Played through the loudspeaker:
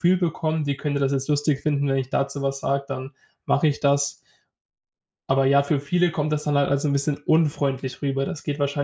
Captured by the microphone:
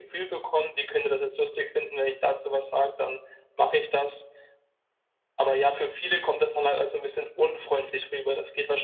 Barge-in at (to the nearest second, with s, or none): none